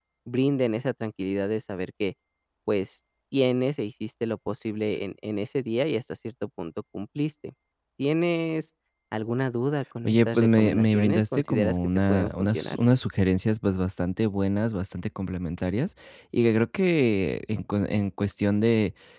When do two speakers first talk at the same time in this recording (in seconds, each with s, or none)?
10.1 s